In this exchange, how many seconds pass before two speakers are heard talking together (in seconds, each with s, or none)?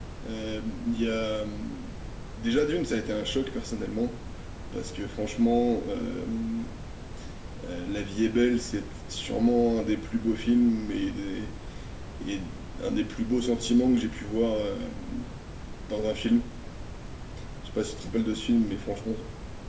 none